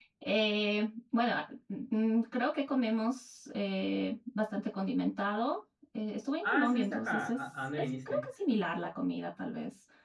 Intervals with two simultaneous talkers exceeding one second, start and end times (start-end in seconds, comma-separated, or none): 6.4-8.2